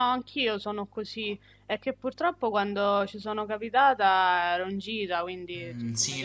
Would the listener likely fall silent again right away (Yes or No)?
No